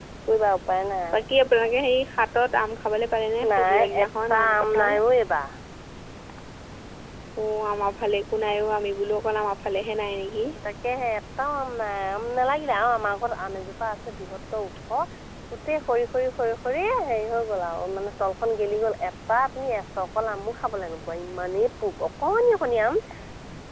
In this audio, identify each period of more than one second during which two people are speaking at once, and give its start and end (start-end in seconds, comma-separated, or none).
3.6-4.9